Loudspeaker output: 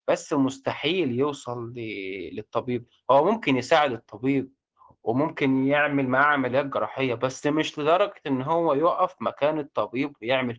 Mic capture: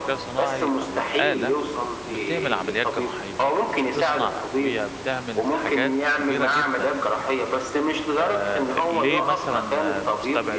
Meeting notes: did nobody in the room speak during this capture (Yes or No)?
No